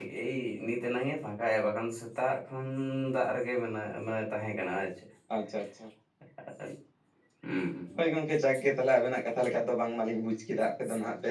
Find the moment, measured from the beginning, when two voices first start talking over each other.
none

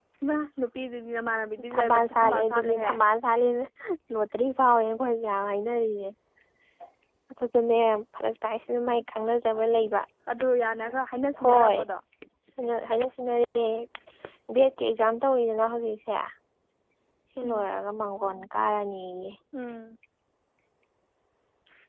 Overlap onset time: 1.7 s

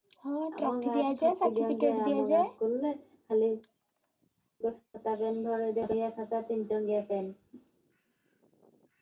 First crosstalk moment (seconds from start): 0.6 s

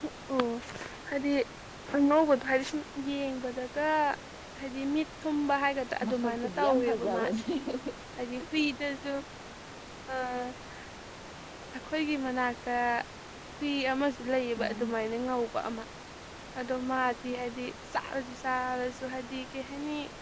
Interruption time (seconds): 6.0 s

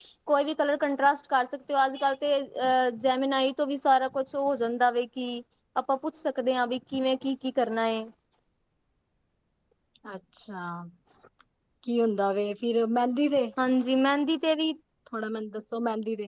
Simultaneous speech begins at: none

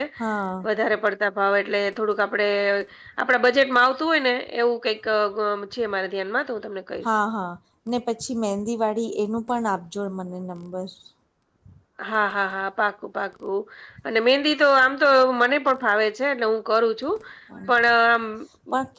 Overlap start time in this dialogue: none

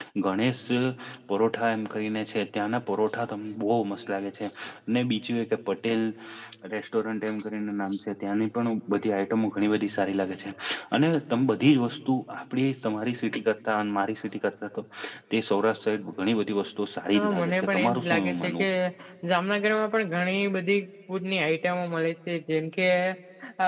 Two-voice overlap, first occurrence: 17.1 s

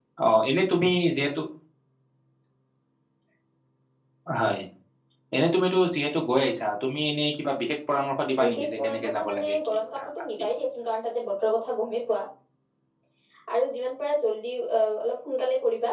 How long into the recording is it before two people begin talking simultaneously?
8.4 s

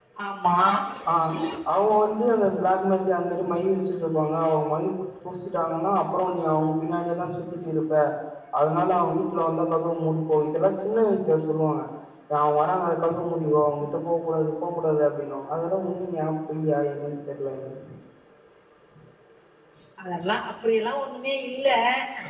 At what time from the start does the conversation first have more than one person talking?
none

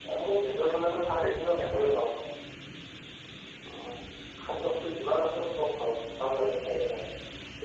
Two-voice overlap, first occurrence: 0.6 s

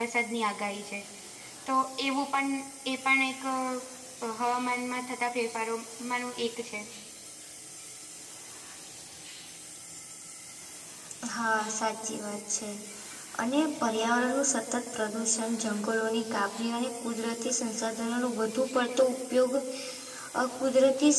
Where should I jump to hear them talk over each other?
none

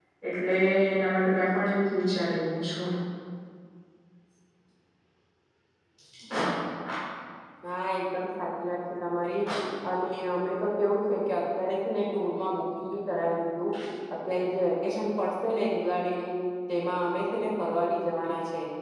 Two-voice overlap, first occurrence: none

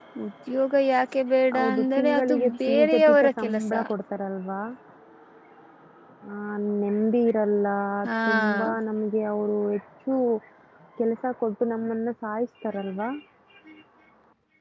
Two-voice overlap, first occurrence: 1.6 s

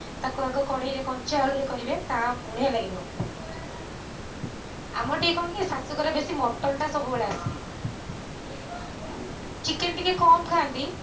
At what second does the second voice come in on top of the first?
none

